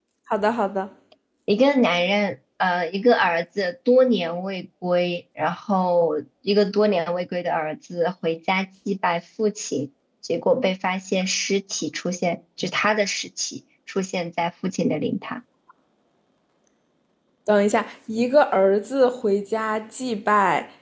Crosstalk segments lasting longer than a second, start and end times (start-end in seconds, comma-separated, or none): none